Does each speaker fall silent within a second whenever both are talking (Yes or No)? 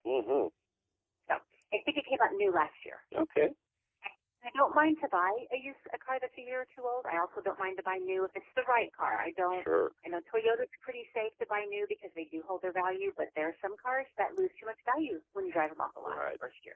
Yes